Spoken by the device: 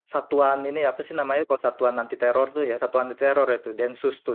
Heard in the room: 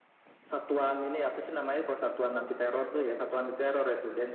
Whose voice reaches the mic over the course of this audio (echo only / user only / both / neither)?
echo only